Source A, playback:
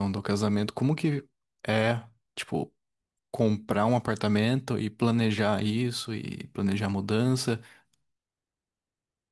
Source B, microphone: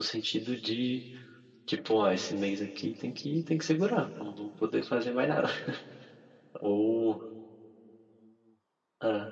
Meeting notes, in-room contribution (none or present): present